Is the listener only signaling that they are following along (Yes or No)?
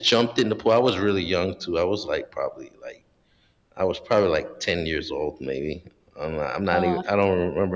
Yes